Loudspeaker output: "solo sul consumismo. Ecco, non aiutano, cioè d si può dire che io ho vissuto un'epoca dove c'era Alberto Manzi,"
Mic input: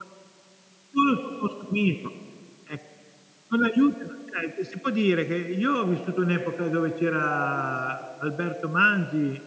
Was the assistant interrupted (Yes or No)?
No